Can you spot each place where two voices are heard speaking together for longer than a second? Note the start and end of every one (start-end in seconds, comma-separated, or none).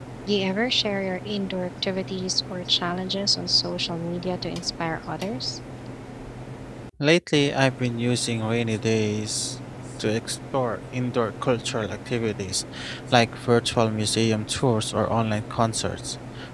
none